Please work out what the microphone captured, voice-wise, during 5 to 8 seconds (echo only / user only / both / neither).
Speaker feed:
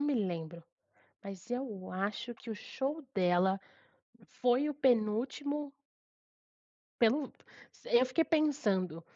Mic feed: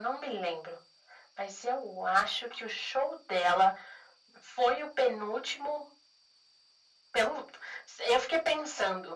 echo only